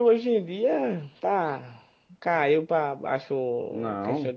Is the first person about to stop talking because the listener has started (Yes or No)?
No